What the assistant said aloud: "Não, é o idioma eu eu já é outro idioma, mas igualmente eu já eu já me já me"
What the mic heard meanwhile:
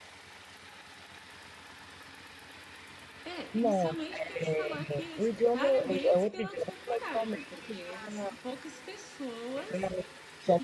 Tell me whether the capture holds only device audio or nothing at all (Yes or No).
No